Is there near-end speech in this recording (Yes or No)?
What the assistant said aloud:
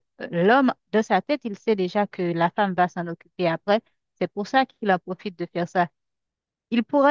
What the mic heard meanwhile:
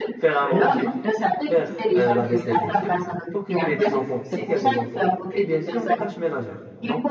Yes